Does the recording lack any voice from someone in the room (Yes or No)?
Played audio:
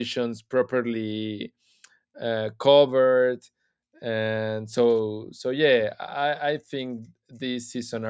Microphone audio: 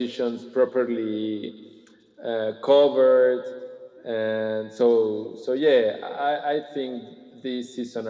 Yes